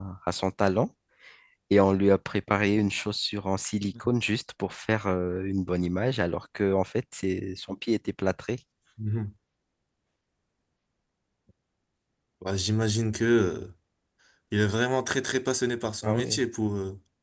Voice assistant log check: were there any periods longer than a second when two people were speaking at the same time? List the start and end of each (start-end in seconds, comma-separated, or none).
none